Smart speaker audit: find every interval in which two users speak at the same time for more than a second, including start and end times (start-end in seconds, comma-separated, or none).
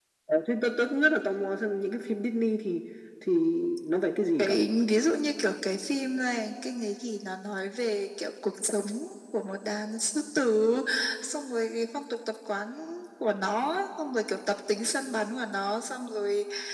none